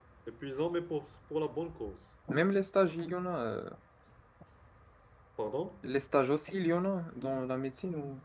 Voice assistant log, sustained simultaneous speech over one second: none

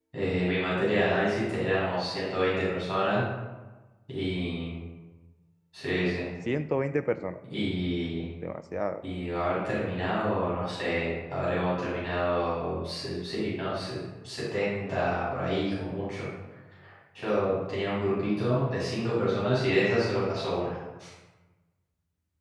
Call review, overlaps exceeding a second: none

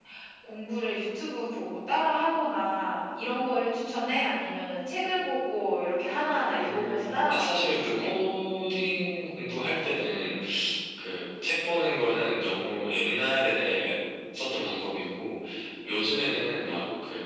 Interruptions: present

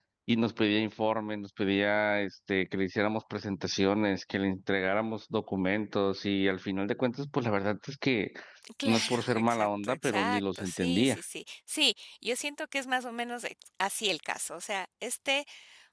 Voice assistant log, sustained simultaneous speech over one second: present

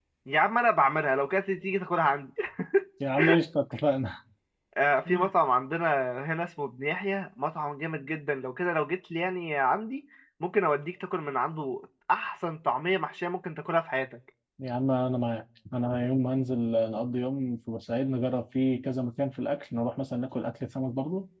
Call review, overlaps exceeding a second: none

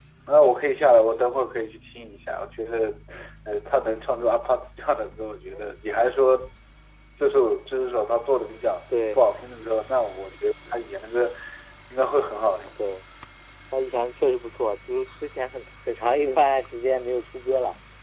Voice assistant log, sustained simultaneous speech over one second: none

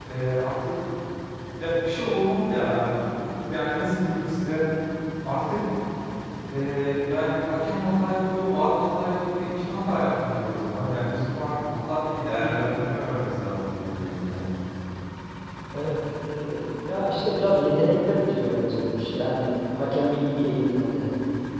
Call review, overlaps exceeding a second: none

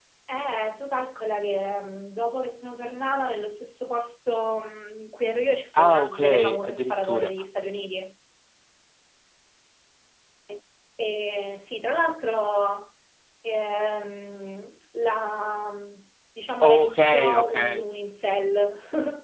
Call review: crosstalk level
present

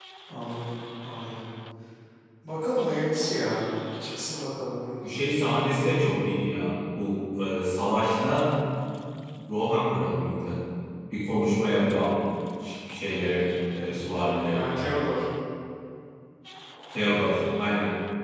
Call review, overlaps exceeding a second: none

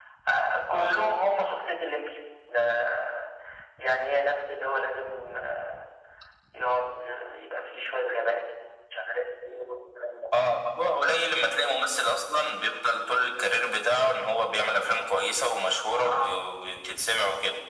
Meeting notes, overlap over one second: none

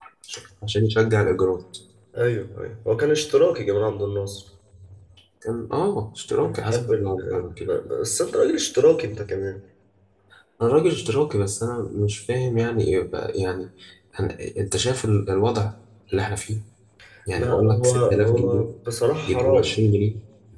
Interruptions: present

